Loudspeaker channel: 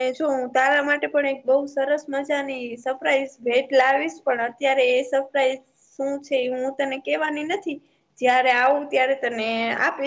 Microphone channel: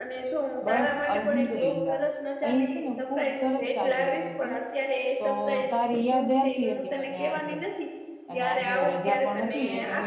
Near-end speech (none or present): present